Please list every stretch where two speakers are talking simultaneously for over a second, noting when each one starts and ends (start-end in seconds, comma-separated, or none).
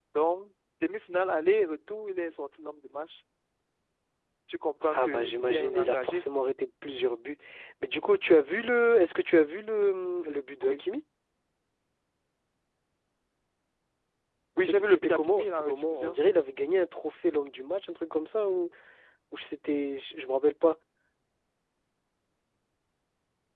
4.9-6.2, 14.6-16.2